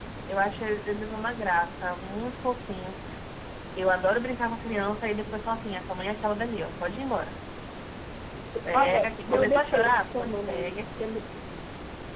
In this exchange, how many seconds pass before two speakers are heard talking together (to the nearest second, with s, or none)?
9 s